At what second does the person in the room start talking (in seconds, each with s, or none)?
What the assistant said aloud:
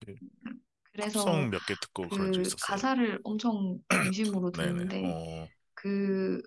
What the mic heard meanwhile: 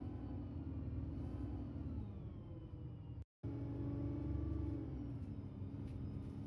none